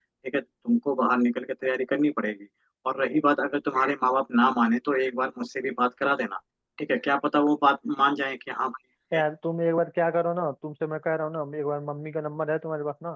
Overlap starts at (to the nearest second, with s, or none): none